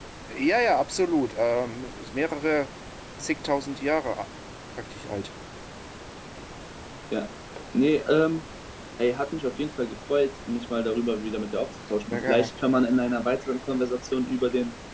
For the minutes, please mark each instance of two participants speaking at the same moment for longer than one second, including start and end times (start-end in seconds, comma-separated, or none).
none